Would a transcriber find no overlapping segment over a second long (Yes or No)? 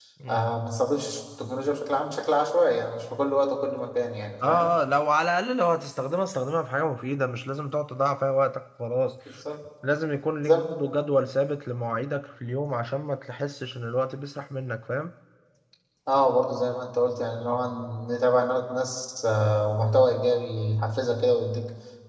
Yes